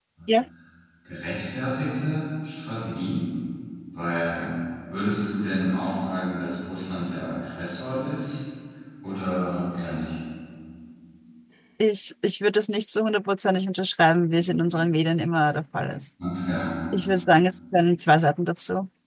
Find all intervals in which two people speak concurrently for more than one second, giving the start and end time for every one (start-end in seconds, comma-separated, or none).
none